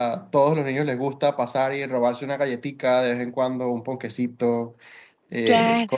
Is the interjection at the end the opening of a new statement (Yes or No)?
No